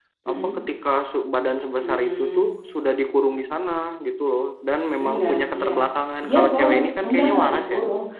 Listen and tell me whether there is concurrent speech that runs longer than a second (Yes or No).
Yes